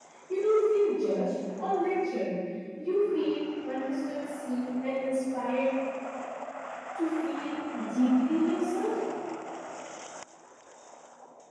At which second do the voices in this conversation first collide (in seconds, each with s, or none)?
none